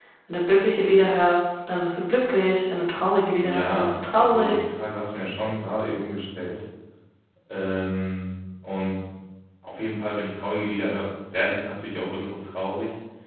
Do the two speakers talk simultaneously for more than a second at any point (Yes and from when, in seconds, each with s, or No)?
Yes, from 3.4 s